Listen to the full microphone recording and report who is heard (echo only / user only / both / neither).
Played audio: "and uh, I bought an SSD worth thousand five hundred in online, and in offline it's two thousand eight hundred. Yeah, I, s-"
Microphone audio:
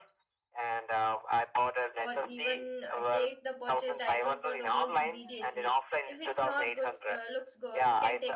both